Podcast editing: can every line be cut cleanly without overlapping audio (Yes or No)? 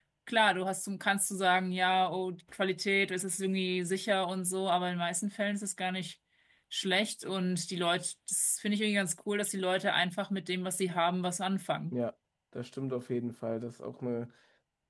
Yes